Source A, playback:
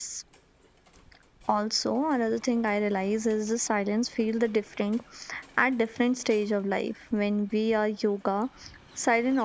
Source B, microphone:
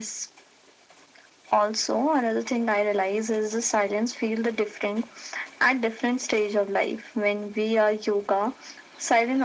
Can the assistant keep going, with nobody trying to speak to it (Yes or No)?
Yes